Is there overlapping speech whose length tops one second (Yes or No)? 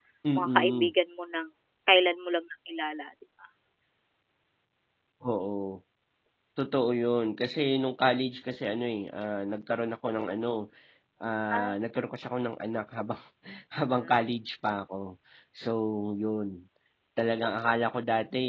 No